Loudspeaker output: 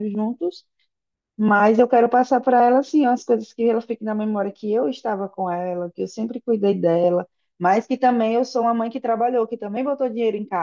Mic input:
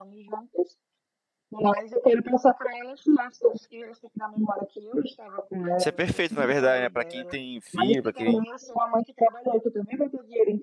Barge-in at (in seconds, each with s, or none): 5.8 s